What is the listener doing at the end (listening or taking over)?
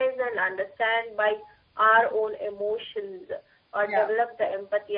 listening